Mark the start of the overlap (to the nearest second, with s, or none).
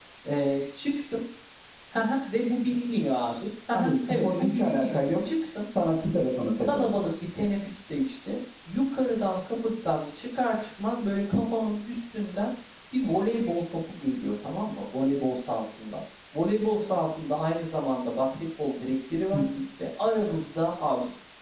4 s